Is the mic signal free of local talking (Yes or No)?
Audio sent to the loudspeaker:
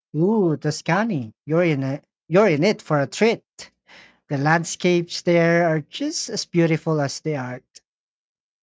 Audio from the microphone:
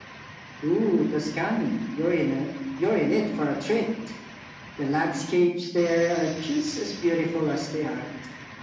Yes